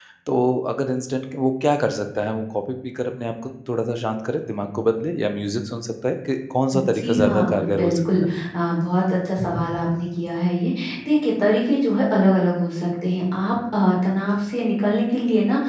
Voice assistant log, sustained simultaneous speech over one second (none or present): present